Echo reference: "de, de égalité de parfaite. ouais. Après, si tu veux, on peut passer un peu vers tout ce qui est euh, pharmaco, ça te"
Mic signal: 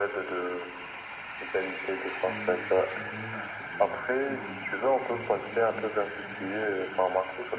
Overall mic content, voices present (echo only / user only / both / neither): both